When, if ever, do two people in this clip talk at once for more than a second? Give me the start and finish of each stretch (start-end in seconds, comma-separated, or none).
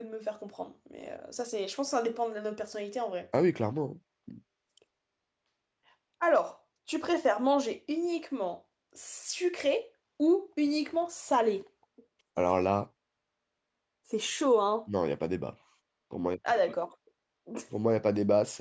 none